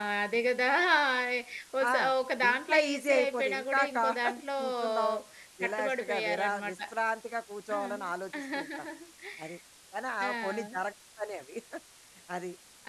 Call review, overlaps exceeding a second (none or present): present